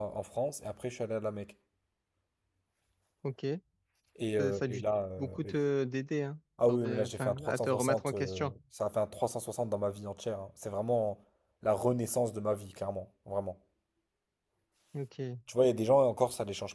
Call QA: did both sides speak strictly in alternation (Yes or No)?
No